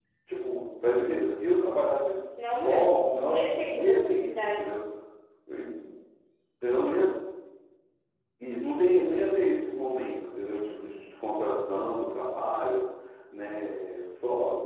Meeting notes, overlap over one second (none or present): present